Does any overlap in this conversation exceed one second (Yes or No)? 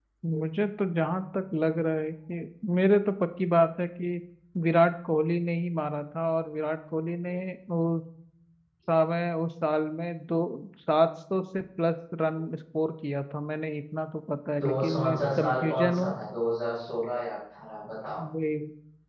Yes